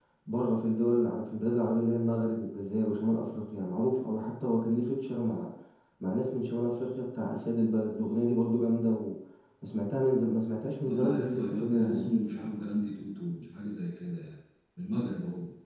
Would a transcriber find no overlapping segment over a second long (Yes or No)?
No